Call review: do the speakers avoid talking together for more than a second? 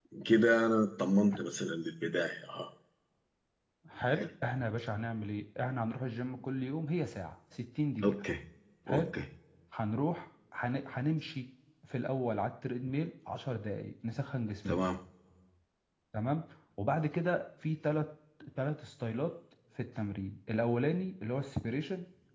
Yes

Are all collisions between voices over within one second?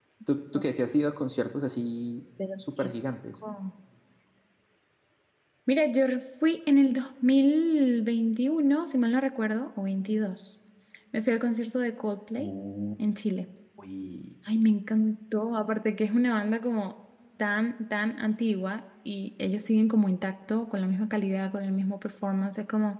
Yes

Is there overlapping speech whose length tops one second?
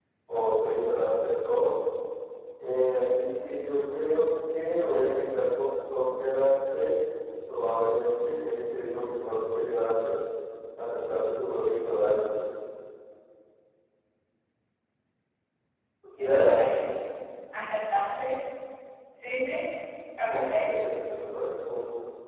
No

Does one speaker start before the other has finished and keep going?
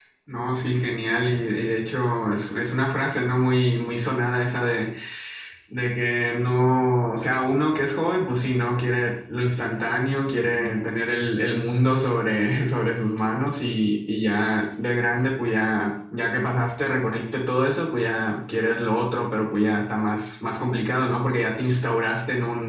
No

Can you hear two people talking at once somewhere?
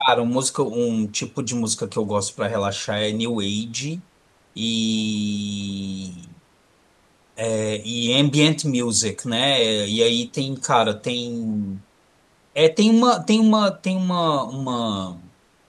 No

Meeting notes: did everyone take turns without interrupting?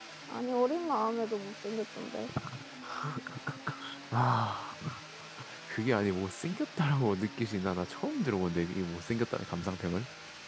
Yes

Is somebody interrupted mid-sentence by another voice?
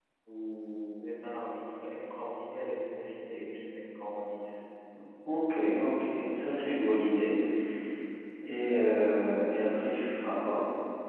No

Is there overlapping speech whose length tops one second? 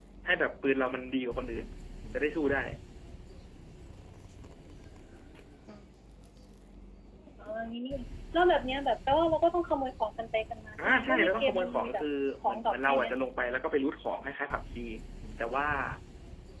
Yes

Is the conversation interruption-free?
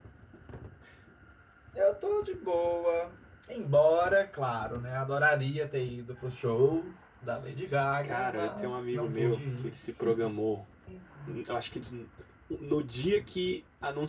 No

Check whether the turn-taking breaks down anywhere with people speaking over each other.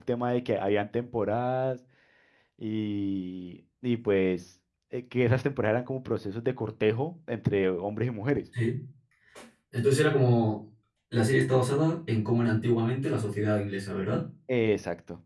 No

